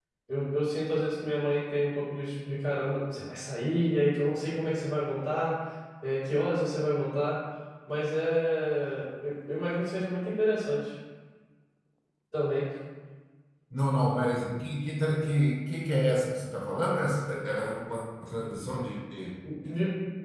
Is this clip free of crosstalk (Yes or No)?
Yes